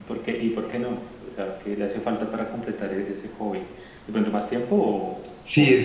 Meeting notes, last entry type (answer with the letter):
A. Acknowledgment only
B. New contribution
B